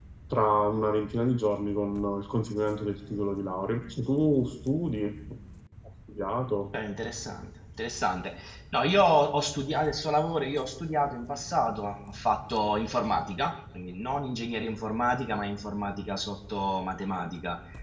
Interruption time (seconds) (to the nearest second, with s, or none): none